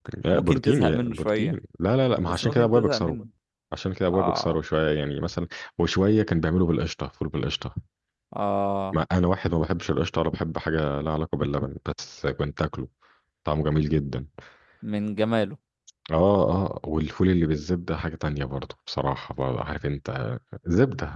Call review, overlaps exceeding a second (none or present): present